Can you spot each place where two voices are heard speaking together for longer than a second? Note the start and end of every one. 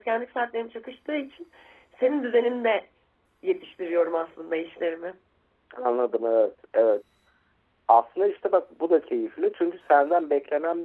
none

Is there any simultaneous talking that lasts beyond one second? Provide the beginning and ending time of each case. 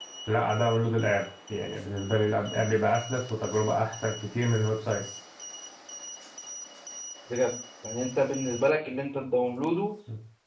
none

